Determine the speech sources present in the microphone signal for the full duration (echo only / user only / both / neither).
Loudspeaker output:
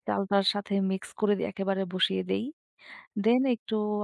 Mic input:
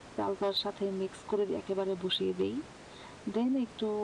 echo only